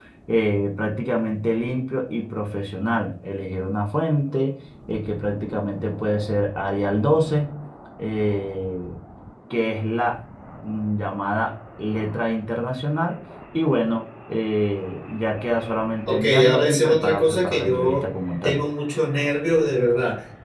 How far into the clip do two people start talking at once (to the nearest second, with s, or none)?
16 s